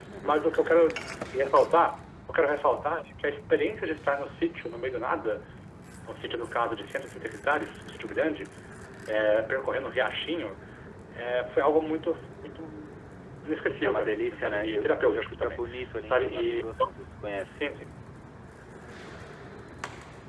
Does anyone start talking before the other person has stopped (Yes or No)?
Yes